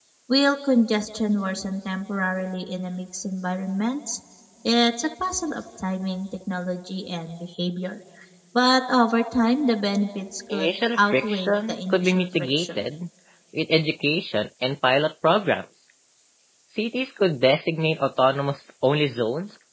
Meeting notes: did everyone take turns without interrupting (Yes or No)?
No